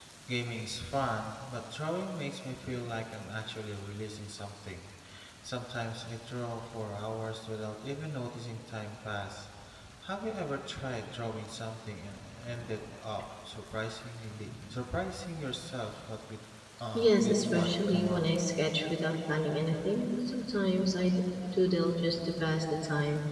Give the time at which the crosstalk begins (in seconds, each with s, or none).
16.9 s